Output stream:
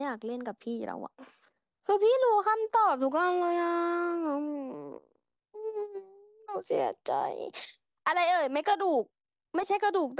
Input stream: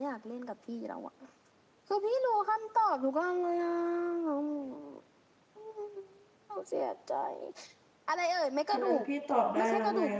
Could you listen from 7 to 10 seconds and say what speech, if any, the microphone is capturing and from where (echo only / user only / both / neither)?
both